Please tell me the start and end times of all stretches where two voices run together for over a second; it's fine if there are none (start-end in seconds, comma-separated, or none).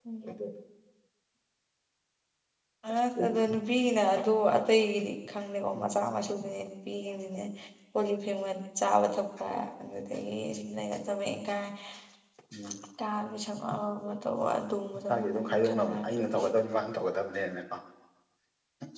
15.1-16.5